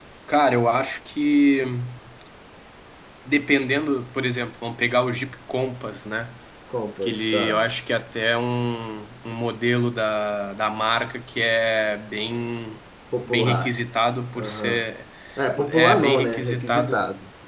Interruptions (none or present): present